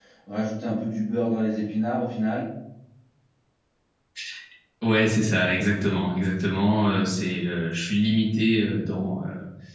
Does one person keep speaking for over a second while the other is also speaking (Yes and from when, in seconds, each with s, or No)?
No